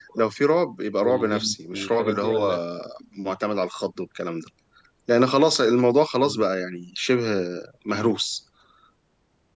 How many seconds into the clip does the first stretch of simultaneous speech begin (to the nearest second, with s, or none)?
1 s